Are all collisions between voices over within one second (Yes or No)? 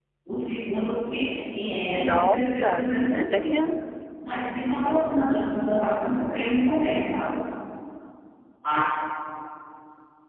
No